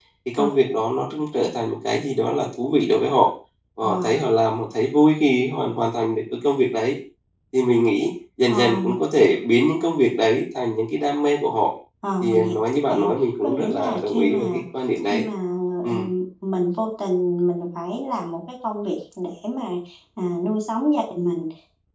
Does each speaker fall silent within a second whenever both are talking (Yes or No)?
No